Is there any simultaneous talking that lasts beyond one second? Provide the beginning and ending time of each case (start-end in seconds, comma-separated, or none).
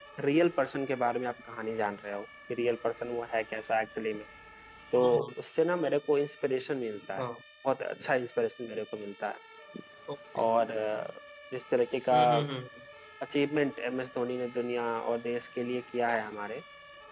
none